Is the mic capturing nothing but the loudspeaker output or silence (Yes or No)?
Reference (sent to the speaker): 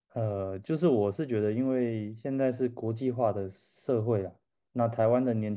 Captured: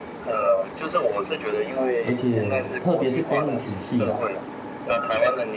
No